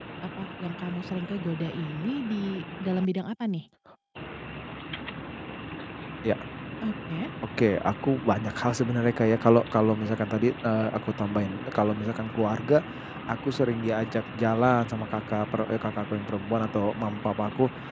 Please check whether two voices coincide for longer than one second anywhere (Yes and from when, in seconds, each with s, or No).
No